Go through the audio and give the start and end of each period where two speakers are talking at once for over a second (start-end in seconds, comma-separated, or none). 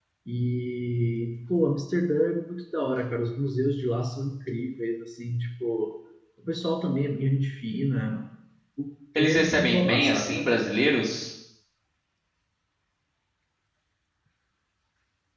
9.2-10.4